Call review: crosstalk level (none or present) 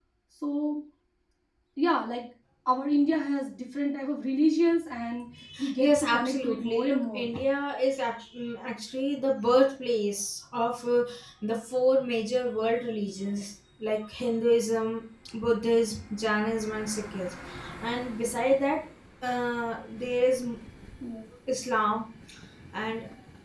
present